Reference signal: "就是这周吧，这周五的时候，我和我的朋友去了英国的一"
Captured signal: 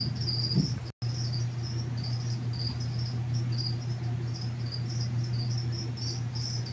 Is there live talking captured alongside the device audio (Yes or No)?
No